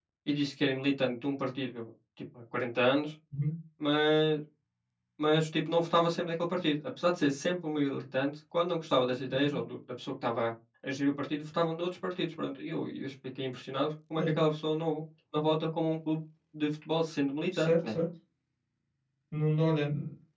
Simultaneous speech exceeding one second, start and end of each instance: none

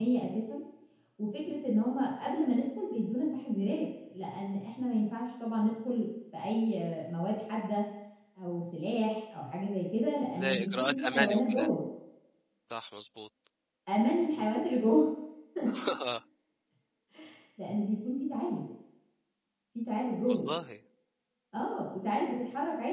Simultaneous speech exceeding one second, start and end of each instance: 10.3-11.7

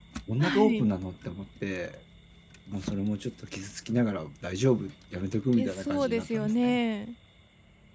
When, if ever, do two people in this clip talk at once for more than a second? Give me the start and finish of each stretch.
5.6-6.8

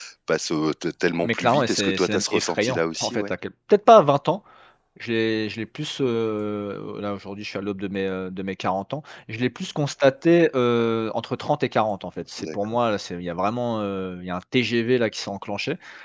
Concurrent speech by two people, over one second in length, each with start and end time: 1.2-3.3

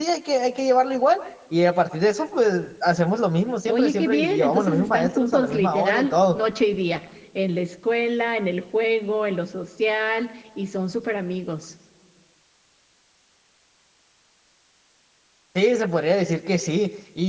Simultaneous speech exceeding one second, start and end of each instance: 3.7-6.4

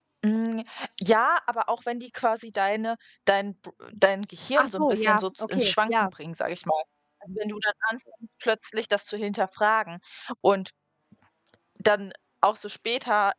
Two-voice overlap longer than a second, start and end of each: 4.5-5.9

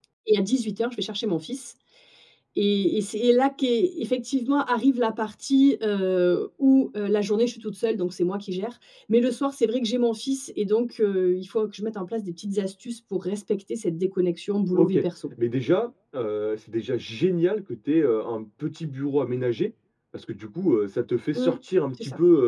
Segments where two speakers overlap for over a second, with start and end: none

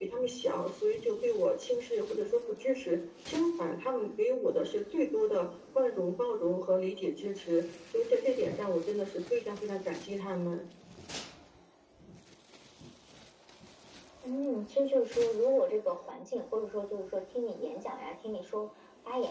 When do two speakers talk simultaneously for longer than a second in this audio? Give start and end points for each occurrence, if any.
none

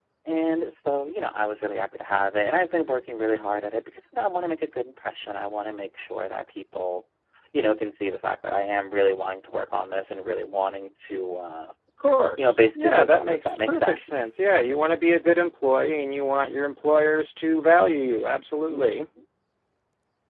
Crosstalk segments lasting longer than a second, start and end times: 12.4-14.3

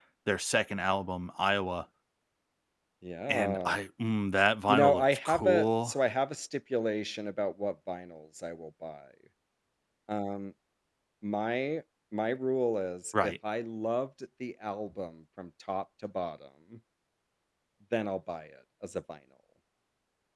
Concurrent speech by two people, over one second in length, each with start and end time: 4.7-5.9

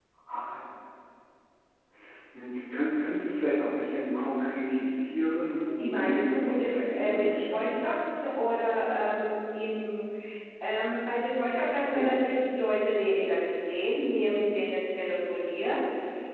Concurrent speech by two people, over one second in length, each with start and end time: 5.8-7.8

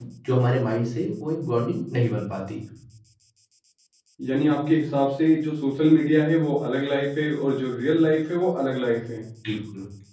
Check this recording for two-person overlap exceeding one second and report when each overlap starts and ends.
none

